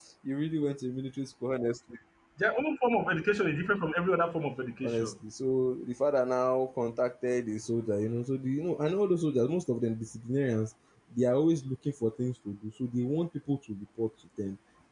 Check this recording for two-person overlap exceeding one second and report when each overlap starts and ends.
none

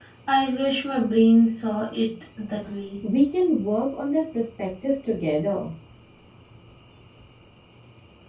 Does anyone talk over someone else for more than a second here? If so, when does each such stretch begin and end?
none

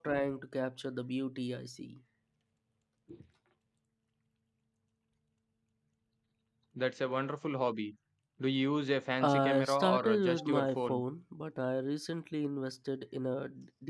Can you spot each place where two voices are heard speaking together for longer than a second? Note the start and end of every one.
9.2-11.0

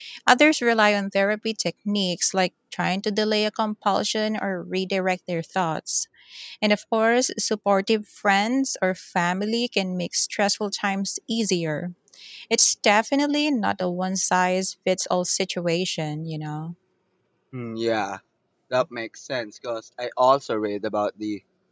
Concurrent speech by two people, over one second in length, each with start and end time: none

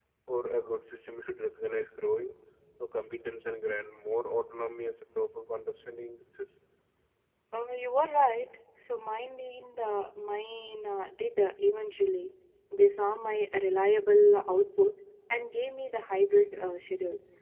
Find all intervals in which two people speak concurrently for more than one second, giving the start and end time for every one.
none

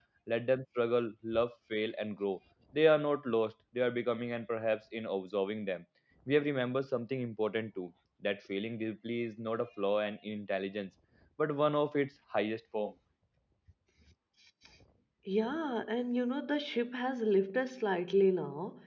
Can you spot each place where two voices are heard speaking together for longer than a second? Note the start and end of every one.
none

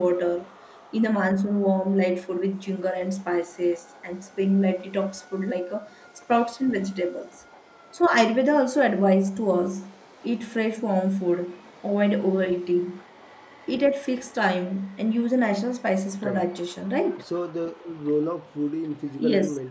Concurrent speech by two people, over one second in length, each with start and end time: none

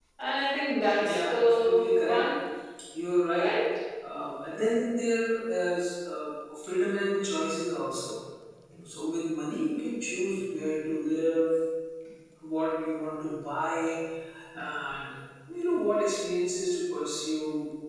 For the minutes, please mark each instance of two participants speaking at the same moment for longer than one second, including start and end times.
1.0-2.2

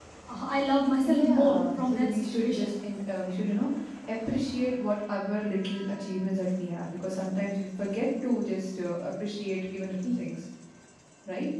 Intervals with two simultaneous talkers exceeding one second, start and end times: 1.0-2.7

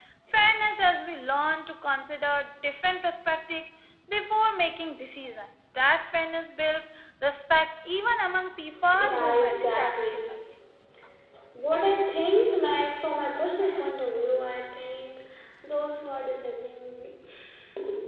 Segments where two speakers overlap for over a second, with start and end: 9.0-10.2

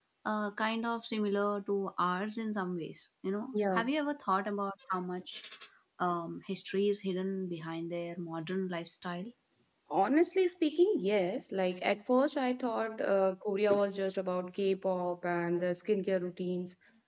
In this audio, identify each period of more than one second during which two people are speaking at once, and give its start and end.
none

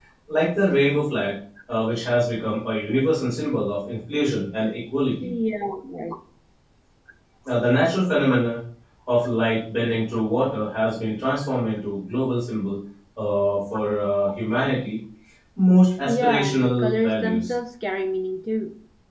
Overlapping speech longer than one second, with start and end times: 16.0-17.5

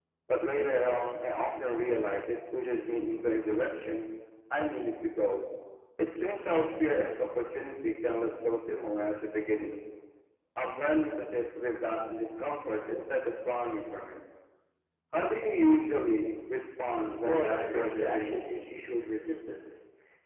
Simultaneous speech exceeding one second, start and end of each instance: 17.2-18.7

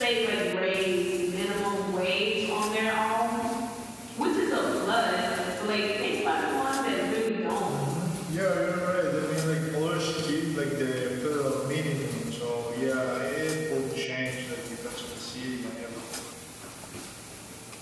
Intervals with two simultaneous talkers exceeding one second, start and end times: none

